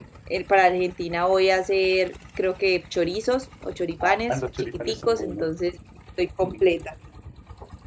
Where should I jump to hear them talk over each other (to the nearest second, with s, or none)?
4 s